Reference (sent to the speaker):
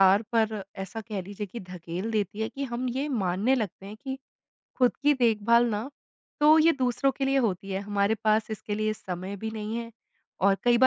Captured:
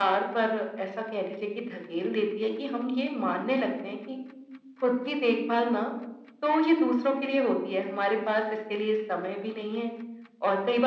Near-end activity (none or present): none